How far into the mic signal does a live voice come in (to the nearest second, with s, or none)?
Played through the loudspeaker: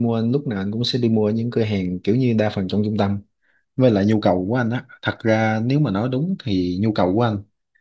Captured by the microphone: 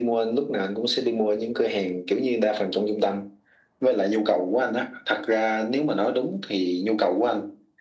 none